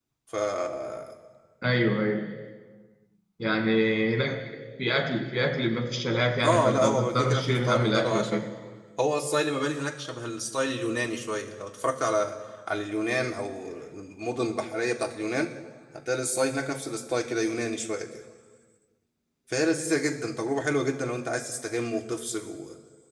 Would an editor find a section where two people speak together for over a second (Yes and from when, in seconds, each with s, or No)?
Yes, from 6.4 s